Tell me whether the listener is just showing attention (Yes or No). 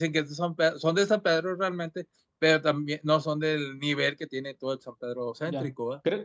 No